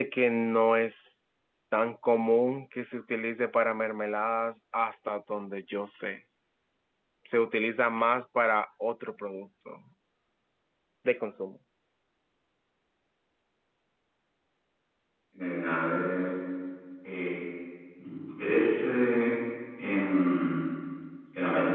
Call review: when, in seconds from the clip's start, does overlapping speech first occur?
none

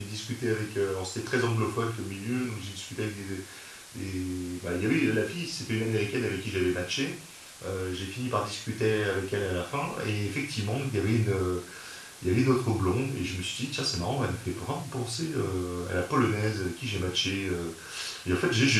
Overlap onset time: none

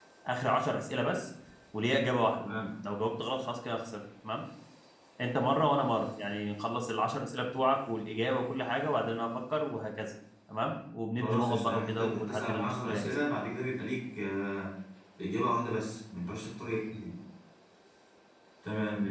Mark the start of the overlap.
11.2 s

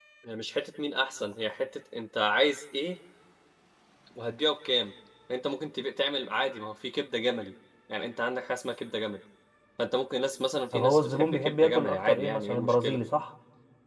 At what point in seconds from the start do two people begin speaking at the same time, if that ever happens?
10.7 s

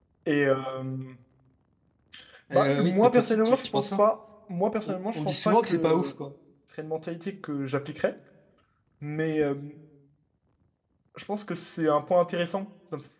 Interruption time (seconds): 2.5 s

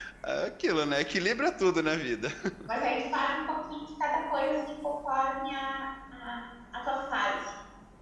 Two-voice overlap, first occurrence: none

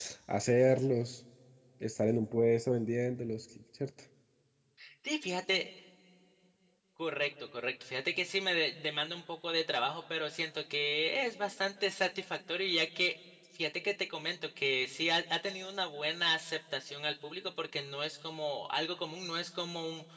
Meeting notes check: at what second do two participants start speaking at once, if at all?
none

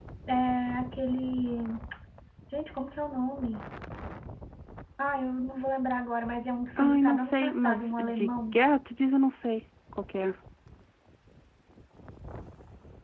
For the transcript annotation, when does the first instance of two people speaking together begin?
6.8 s

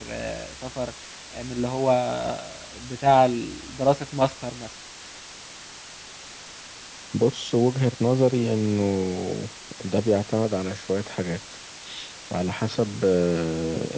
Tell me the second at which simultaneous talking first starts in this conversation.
none

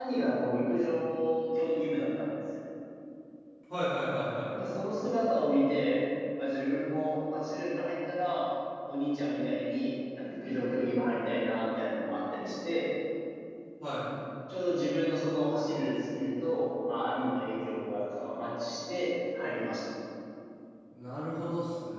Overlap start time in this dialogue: none

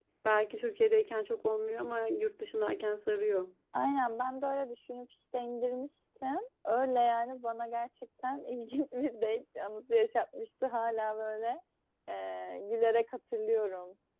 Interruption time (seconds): none

